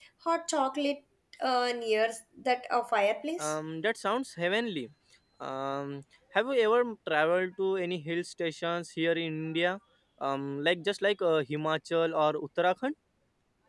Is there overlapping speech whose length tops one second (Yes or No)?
No